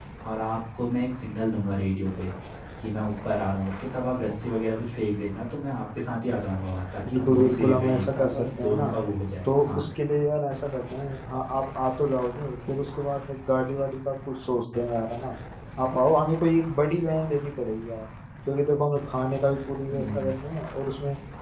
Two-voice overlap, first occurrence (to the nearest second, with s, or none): 7 s